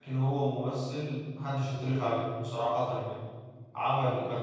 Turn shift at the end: No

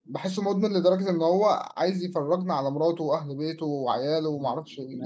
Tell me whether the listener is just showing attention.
No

